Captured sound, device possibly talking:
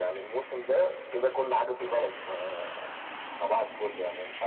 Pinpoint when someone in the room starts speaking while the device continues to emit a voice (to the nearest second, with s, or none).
none